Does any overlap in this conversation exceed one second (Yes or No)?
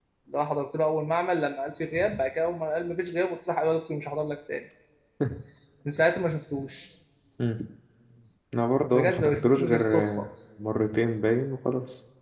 Yes